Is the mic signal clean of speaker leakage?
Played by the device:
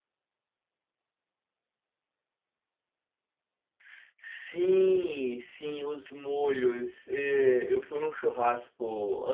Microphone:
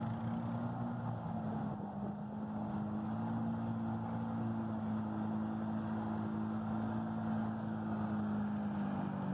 Yes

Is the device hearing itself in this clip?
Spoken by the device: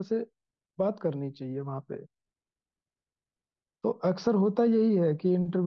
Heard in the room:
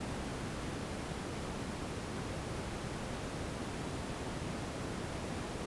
No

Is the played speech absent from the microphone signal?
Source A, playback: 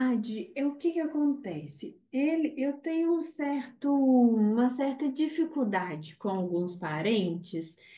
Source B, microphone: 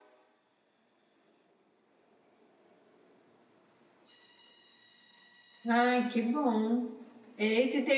Yes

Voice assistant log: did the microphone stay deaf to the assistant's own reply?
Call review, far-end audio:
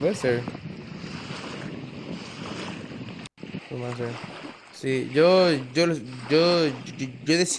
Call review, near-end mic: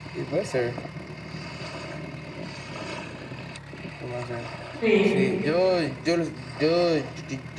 No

